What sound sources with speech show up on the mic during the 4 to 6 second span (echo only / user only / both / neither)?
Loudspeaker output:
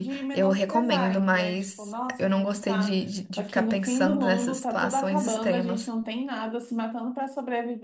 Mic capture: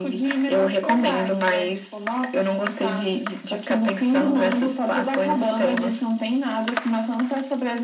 echo only